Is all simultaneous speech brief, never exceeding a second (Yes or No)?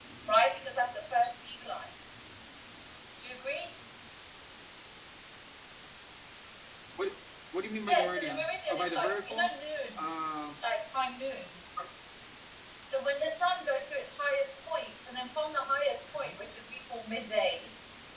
No